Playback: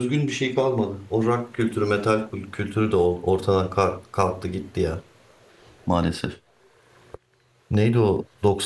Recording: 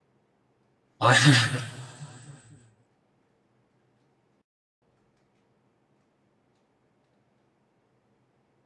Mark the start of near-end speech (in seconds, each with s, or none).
1.0 s